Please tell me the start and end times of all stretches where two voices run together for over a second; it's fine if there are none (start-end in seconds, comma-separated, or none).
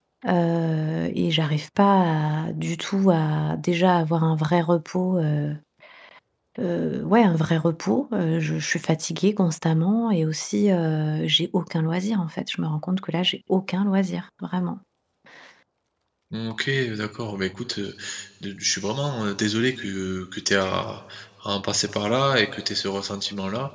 none